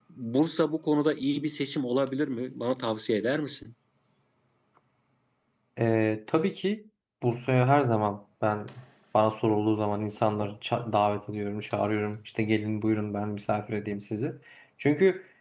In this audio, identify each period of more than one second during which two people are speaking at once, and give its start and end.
none

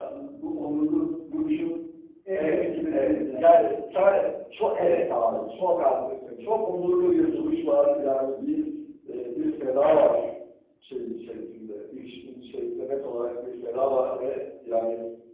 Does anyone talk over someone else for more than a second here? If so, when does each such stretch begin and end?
2.3-3.6

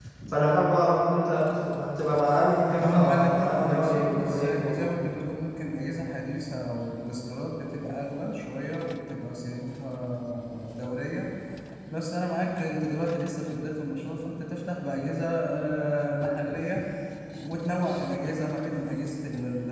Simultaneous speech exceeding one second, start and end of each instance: 2.9-4.7

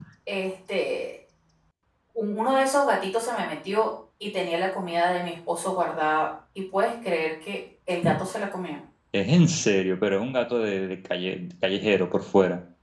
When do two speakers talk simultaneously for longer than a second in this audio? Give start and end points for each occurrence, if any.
none

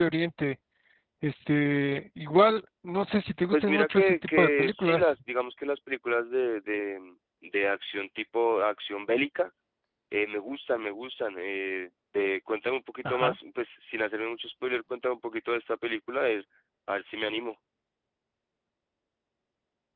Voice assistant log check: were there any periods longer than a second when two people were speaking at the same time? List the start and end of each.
3.5-5.1

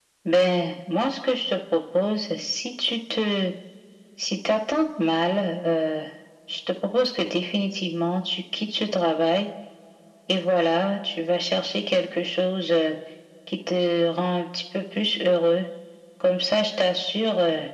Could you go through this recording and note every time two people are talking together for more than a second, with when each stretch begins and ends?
none

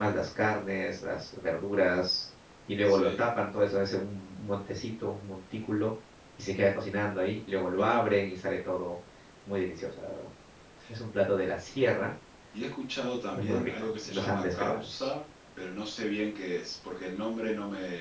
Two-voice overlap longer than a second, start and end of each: 13.3-15.1

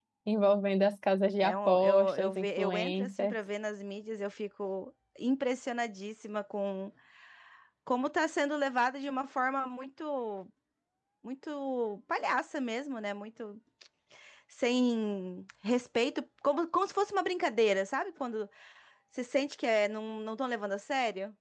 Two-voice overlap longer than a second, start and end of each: 1.4-3.4

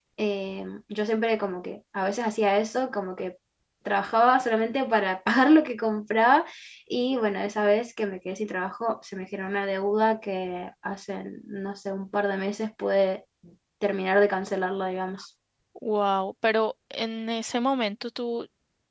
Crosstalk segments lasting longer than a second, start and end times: none

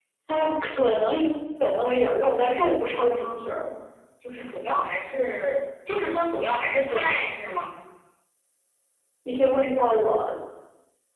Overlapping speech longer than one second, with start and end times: 1.8-3.6

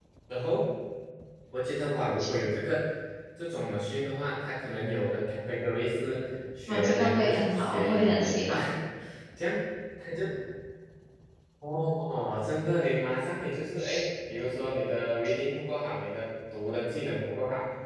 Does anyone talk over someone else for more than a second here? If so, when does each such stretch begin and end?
6.7-8.6

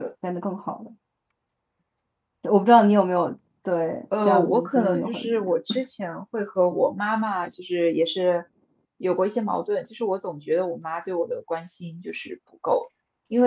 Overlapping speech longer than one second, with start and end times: 4.2-5.8

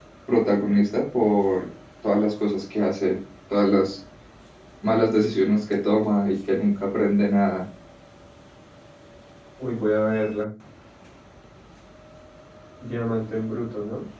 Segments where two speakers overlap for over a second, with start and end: none

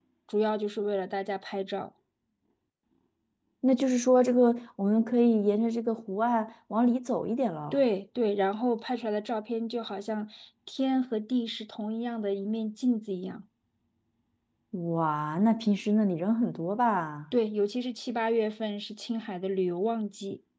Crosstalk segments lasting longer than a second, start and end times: none

